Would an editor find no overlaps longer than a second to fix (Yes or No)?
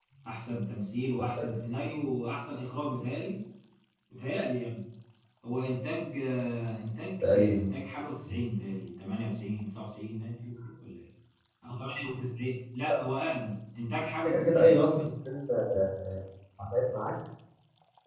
Yes